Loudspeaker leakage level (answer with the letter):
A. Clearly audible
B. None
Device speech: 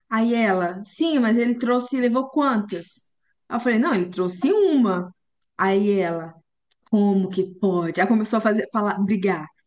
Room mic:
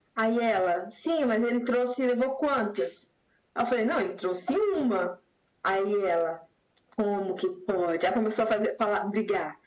A